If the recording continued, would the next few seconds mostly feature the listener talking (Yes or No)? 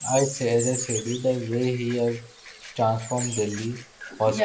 No